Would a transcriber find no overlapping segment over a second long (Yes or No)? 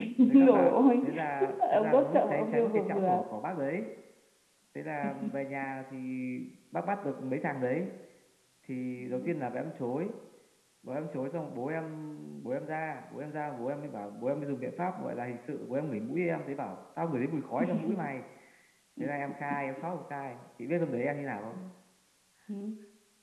No